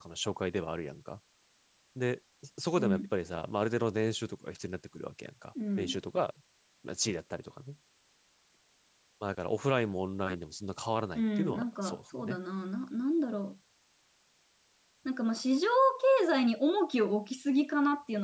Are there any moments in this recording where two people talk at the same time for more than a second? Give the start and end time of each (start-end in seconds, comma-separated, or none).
11.2-12.4